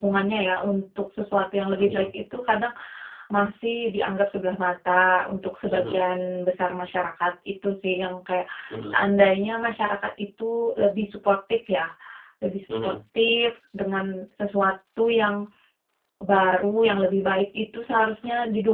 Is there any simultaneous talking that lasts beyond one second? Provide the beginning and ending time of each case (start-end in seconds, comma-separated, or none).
none